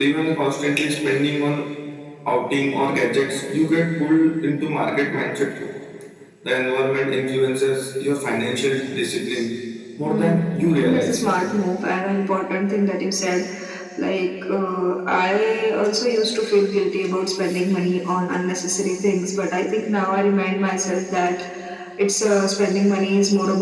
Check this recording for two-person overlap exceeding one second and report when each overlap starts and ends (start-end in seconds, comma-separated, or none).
10.1-11.2